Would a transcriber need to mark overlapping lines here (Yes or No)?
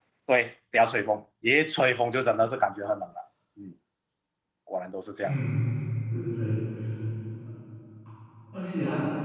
No